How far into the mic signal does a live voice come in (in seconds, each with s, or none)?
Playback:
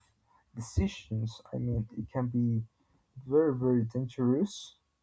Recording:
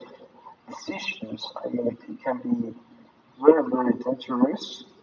none